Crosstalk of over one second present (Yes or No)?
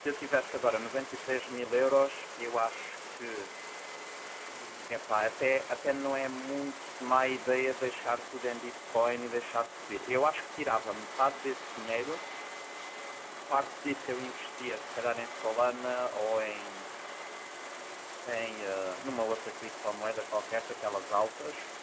No